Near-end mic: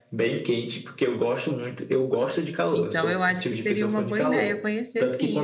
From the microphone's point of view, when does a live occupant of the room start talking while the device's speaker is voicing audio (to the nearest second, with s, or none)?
3 s